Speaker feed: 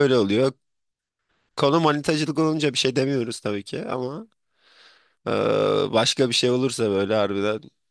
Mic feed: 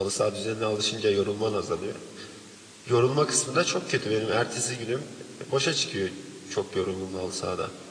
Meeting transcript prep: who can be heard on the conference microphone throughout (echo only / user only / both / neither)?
user only